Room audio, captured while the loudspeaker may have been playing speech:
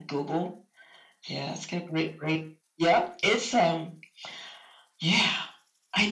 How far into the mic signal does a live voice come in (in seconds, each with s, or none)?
none